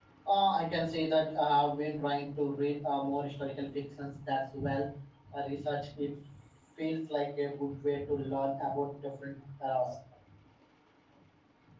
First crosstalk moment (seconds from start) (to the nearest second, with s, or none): none